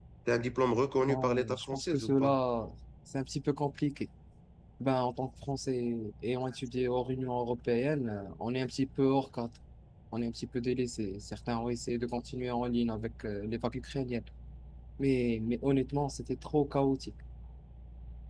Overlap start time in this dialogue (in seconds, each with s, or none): 1.0 s